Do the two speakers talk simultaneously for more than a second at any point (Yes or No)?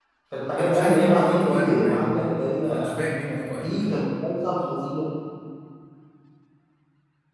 Yes